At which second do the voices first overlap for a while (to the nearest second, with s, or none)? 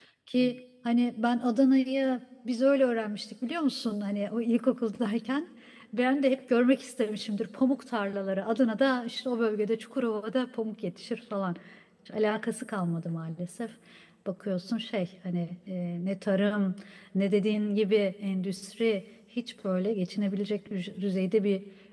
none